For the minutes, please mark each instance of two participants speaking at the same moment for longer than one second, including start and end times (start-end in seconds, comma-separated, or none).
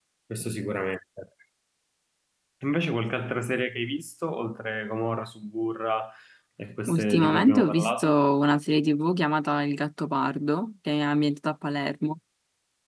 6.9-8.1